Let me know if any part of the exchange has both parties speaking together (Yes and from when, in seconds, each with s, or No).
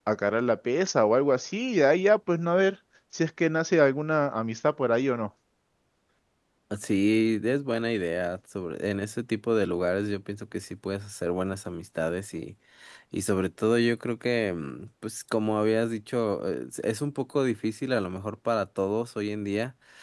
No